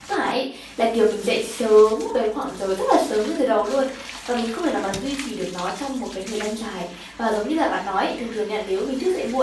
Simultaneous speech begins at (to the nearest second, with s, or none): none